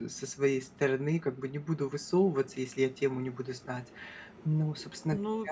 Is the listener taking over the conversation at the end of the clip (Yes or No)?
Yes